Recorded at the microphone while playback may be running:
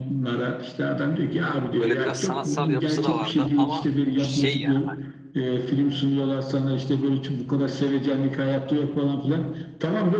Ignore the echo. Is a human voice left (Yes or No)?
Yes